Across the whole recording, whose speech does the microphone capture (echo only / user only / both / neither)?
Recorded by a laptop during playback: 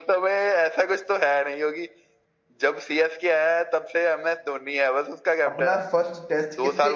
both